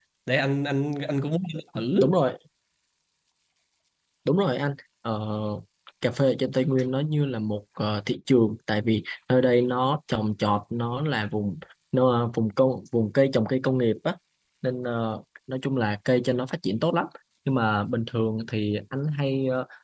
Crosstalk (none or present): none